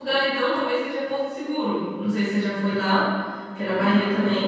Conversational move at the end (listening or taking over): listening